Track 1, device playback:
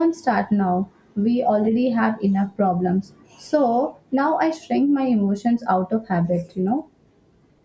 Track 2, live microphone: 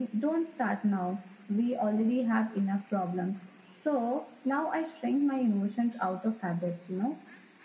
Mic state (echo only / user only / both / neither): echo only